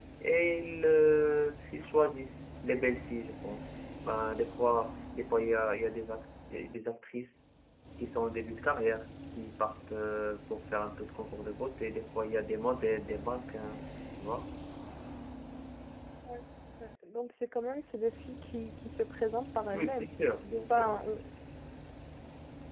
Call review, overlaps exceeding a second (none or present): none